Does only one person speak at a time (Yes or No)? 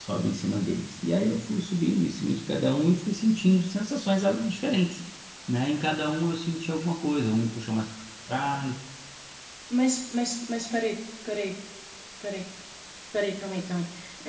Yes